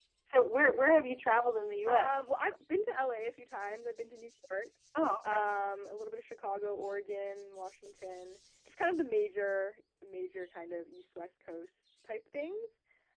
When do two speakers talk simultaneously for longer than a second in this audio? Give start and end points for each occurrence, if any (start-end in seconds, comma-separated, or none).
none